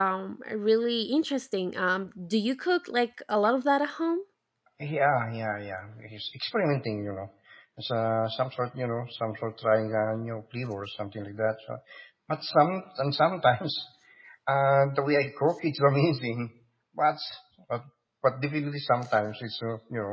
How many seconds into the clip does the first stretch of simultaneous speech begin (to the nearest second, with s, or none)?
none